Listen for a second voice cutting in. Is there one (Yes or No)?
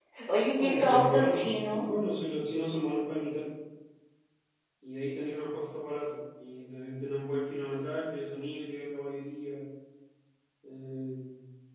Yes